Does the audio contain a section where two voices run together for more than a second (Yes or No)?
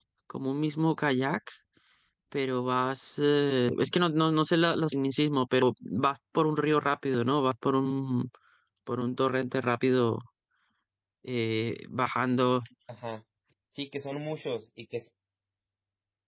No